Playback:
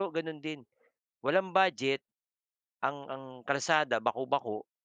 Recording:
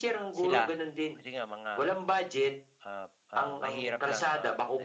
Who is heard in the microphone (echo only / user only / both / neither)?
both